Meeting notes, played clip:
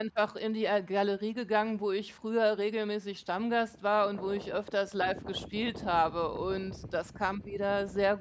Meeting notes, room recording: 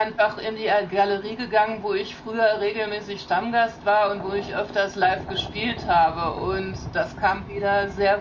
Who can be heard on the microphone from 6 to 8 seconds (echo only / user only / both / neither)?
echo only